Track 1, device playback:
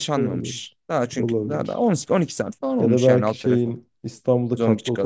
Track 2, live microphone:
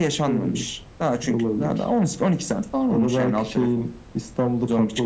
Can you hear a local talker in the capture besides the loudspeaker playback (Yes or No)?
No